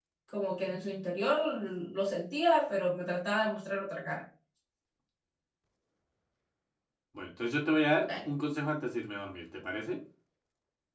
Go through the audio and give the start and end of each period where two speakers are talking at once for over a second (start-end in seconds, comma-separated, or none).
none